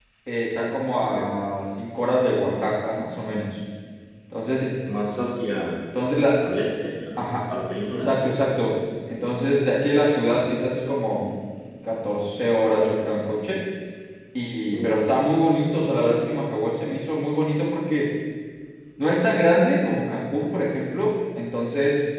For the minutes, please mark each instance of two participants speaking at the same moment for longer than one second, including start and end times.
none

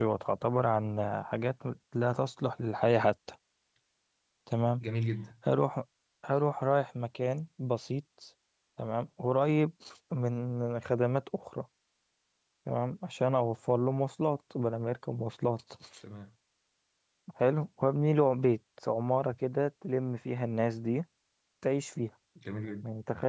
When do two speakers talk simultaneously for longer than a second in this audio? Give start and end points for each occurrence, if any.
none

